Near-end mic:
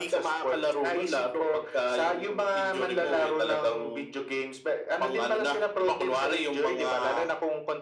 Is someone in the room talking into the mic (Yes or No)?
No